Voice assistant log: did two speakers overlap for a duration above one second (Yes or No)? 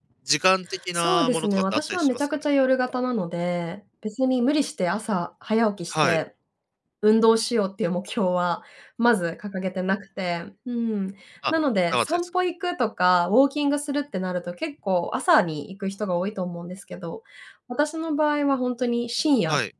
Yes